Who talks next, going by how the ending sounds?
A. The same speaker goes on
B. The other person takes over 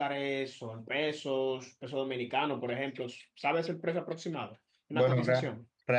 B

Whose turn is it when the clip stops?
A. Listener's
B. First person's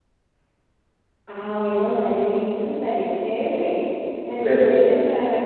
B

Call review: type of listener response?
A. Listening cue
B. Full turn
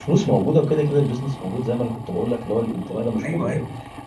A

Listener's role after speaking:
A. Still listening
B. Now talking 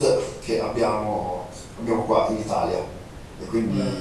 B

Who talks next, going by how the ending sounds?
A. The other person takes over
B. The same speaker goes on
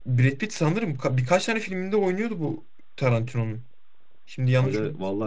A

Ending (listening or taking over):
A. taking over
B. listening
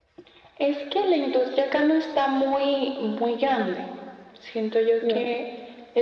B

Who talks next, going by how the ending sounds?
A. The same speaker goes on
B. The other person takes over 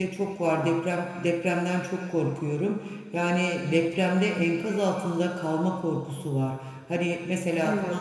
A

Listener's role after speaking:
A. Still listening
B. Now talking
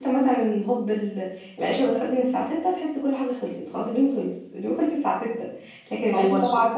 A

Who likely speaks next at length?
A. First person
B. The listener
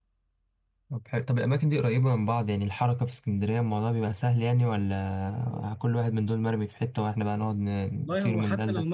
B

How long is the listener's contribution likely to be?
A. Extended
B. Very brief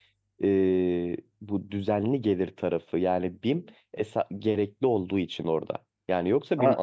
B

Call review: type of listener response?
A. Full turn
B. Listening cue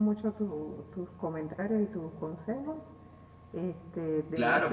A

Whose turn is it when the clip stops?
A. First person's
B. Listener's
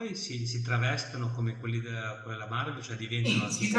B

